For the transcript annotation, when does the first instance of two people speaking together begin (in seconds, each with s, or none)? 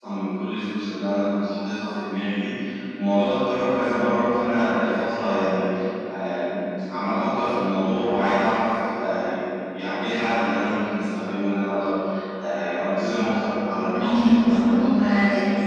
13.9 s